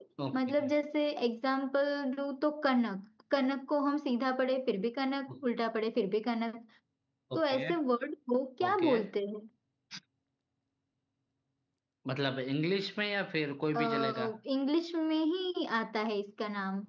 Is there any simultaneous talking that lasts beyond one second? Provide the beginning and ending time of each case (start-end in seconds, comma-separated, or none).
none